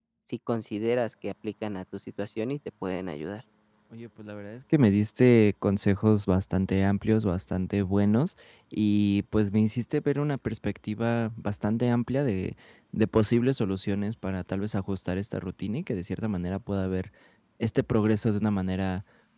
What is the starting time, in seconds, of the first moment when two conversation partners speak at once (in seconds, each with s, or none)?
none